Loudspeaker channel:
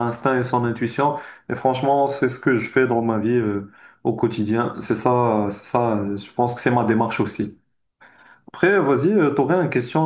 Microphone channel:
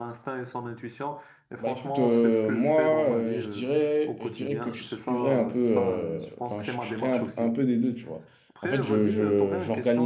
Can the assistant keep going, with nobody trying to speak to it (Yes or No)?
No